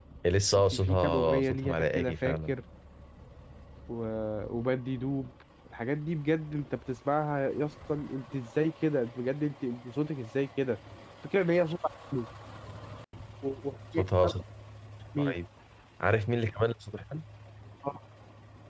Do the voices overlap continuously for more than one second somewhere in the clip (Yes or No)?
Yes